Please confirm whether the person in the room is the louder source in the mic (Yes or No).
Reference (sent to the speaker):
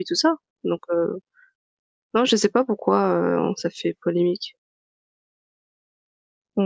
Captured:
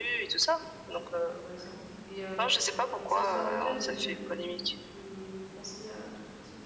No